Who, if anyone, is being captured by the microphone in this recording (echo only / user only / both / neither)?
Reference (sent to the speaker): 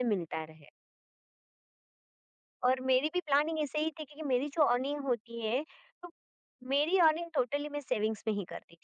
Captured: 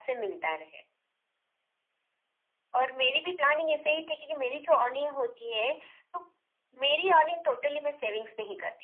echo only